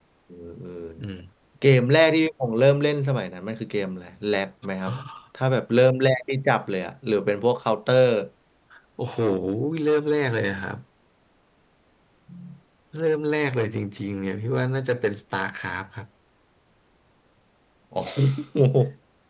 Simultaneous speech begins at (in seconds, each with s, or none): none